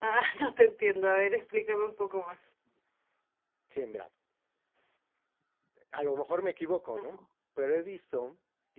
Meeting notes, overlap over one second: none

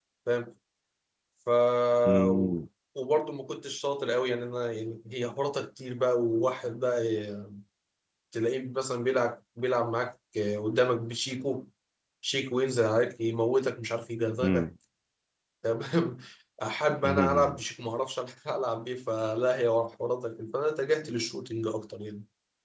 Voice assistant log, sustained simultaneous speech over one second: none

